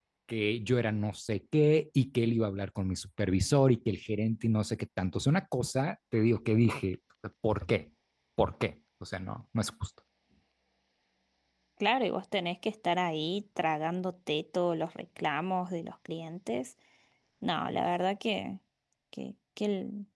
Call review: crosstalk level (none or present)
none